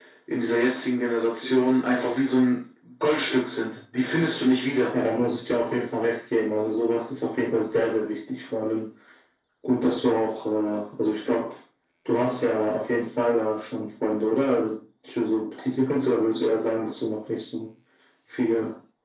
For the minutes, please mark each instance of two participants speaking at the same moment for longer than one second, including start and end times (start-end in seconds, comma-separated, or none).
none